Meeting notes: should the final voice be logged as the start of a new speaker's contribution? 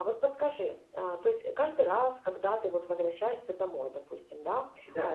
No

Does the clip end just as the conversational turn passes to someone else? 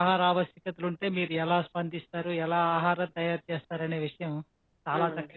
No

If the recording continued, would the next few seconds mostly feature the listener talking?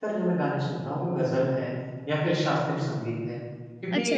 No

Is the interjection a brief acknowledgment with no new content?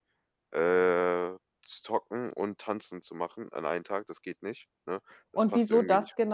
No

